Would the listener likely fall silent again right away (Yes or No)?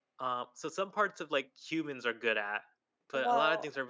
Yes